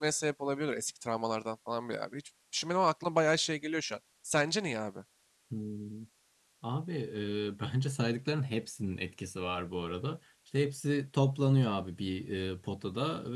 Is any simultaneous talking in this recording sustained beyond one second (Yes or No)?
No